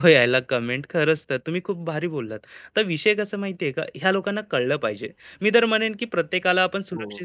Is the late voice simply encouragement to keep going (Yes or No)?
Yes